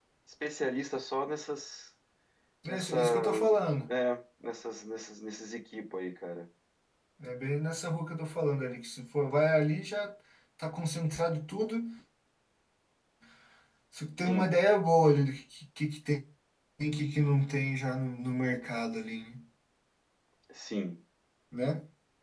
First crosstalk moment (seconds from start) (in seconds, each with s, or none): 2.7 s